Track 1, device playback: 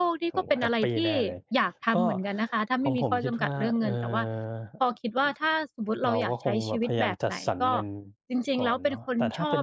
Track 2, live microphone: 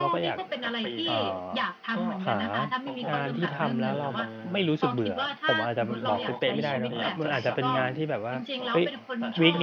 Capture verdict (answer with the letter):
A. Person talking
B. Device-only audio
A